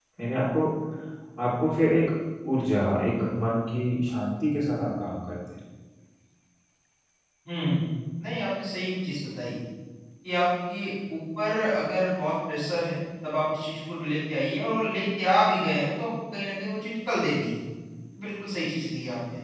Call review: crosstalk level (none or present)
none